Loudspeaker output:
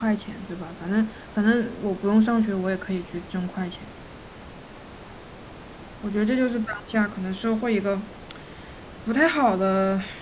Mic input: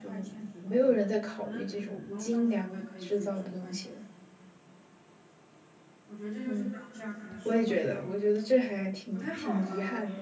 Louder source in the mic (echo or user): user